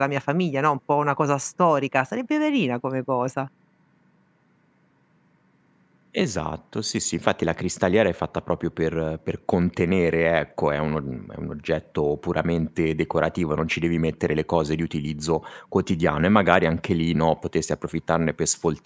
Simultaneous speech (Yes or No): No